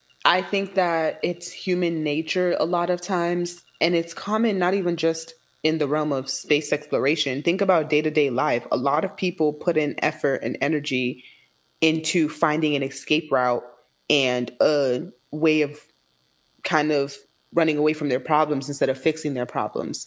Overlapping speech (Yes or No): No